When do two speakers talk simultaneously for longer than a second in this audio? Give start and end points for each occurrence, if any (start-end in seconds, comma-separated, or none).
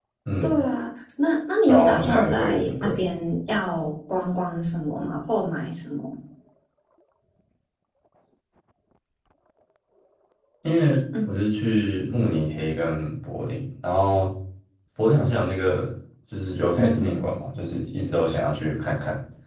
1.7-3.0